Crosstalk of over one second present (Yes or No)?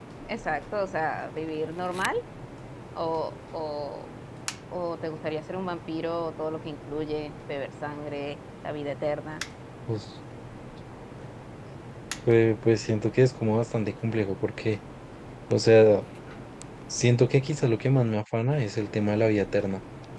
No